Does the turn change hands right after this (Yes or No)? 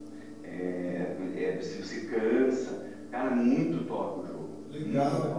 Yes